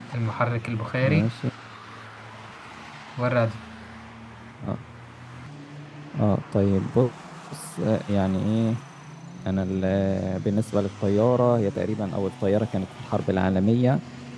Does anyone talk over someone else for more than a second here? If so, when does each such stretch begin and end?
none

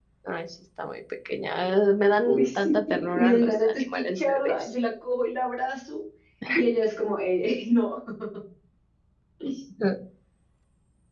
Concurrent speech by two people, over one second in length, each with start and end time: 2.2-4.7

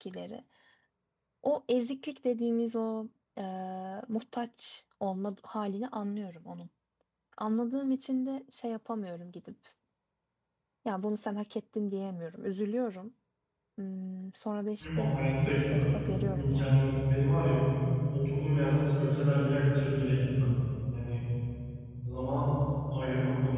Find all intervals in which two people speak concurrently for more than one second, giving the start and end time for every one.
14.8-16.7

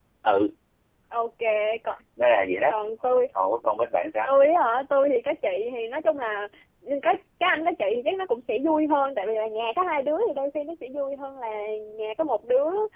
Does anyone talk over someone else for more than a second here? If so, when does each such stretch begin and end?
none

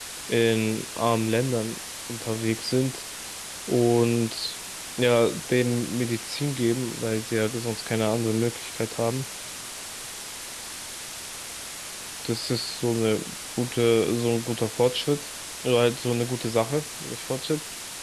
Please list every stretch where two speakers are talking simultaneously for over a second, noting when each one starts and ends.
none

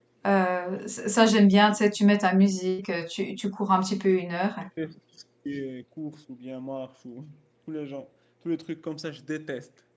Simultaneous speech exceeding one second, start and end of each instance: none

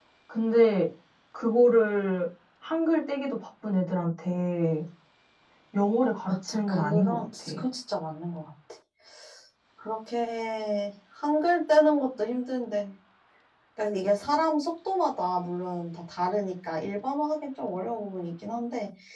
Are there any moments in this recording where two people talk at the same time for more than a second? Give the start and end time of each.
6.2-7.5

